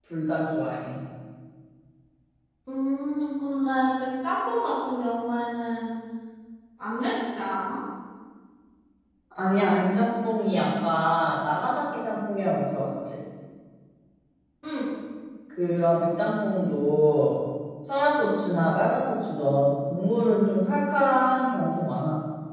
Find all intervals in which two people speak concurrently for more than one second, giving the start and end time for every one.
none

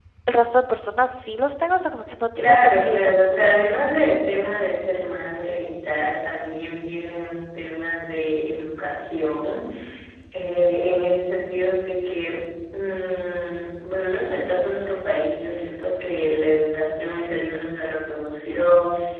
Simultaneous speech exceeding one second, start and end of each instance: 2.4-4.0

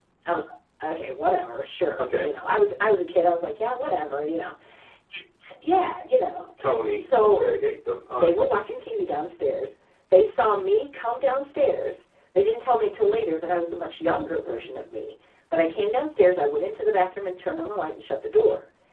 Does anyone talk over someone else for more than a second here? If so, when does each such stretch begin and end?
none

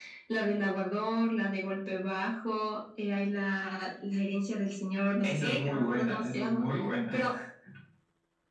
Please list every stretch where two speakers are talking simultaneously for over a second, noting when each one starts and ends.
5.2-6.6

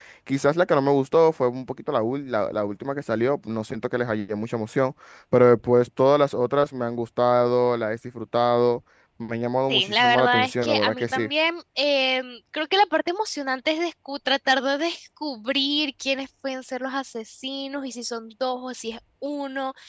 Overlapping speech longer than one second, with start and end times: 9.7-11.3

